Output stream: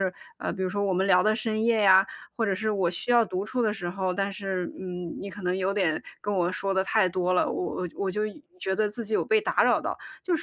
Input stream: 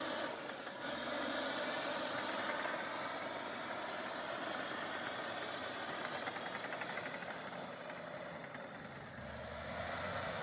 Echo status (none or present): none